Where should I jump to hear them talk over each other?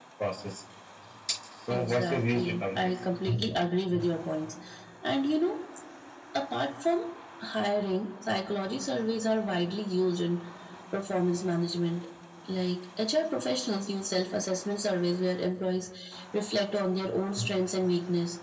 1.7 s

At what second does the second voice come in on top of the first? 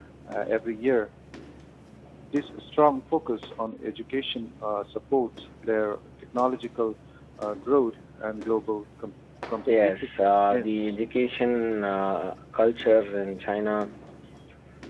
9.7 s

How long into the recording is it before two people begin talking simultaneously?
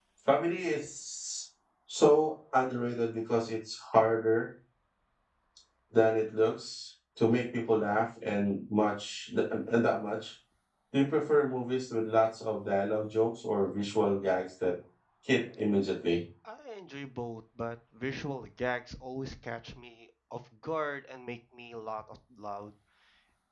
none

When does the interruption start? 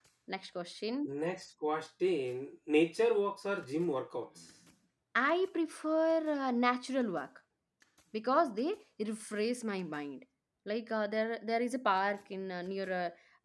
none

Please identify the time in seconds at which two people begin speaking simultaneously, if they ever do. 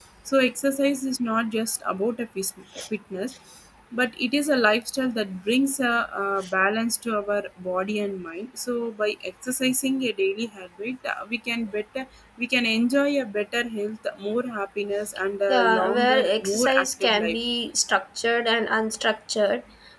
15.5 s

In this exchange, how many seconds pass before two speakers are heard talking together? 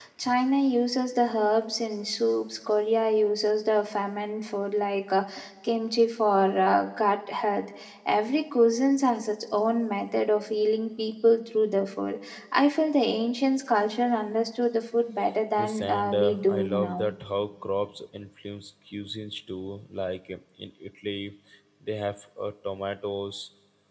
15.6 s

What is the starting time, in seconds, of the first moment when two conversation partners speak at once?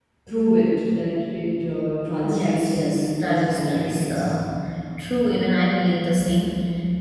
2.2 s

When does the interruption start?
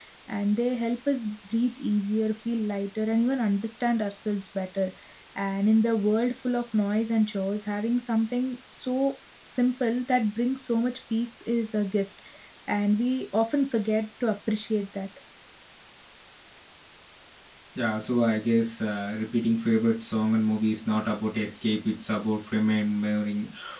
none

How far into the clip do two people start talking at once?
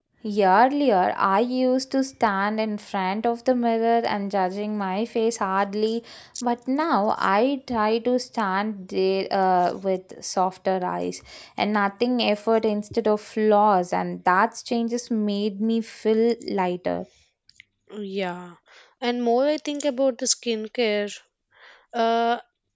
none

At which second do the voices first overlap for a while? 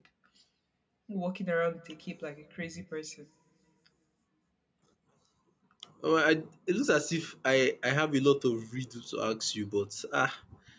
none

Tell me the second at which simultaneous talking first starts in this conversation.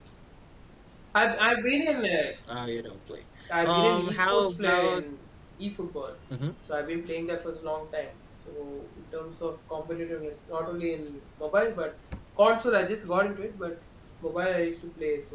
3.5 s

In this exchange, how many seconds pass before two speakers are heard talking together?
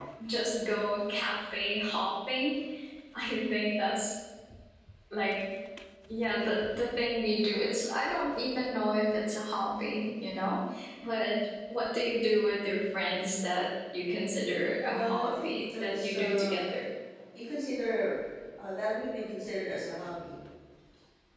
14.8 s

